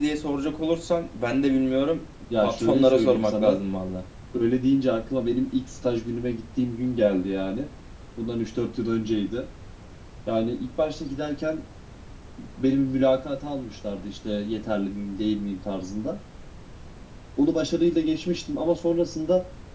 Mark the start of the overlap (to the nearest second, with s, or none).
2 s